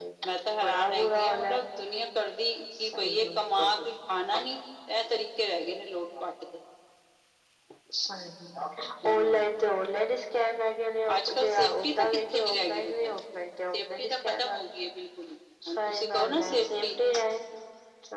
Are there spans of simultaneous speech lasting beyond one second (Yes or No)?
Yes